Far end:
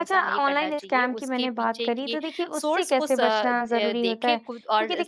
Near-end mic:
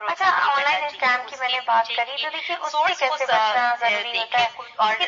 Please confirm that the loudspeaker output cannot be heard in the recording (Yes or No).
No